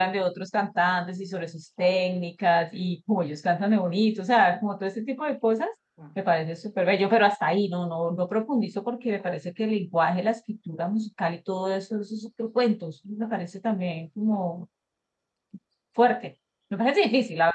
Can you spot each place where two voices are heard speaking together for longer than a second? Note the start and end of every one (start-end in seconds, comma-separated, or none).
none